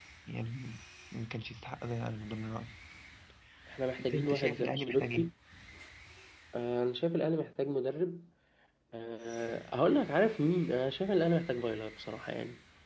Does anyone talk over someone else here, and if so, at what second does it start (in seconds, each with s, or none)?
4.0 s